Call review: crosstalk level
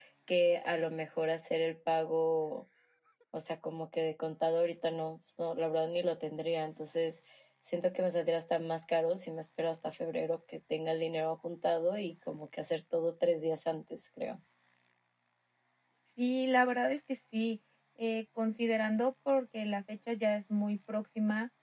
none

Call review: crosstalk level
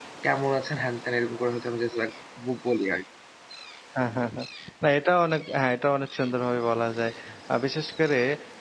none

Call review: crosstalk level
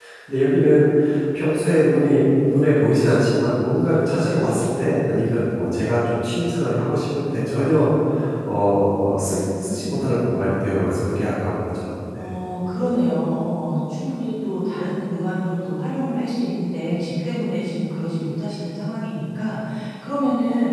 none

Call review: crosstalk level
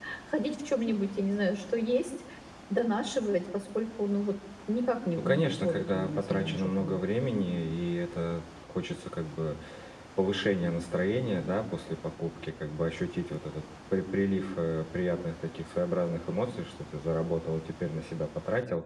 present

